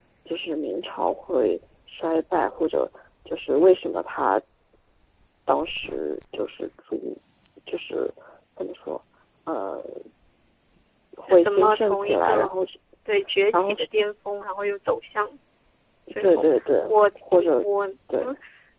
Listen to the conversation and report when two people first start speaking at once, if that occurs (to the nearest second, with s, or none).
11 s